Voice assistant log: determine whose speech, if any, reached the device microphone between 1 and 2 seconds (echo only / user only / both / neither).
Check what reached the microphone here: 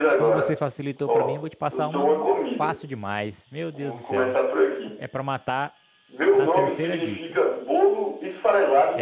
both